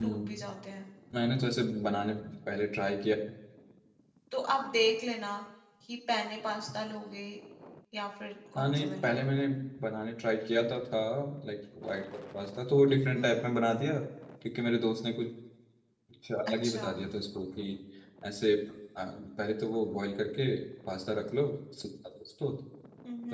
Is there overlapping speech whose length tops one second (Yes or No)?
No